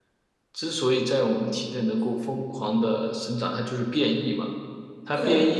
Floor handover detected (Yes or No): No